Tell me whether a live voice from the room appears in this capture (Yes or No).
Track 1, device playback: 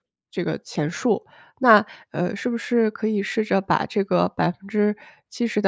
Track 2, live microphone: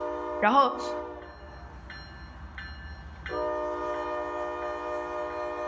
Yes